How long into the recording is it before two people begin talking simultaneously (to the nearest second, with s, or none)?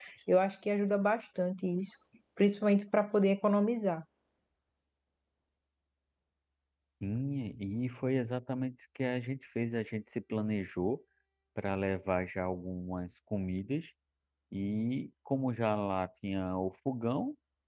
none